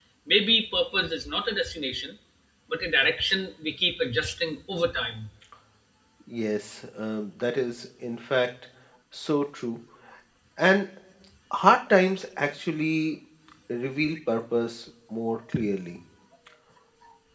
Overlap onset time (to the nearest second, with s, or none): none